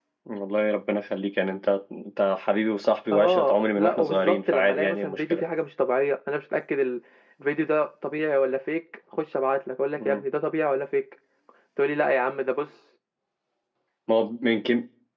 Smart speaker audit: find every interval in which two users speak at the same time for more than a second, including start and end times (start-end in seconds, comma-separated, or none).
3.1-5.4